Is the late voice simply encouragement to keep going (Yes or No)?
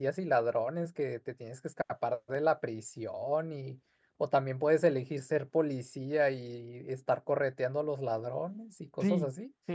No